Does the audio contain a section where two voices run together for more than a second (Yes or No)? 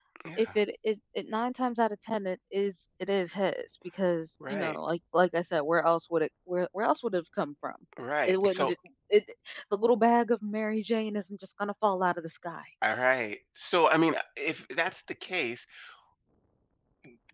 No